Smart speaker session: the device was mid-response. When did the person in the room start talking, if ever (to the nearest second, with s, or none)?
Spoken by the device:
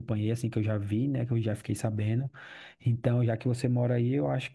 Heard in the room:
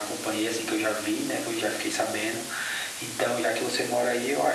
none